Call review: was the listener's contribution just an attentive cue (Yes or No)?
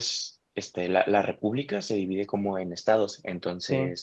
Yes